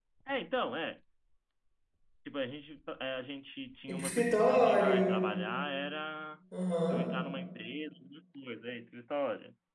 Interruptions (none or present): present